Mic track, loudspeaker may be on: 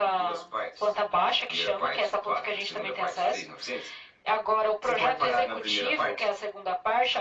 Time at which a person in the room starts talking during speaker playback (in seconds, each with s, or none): none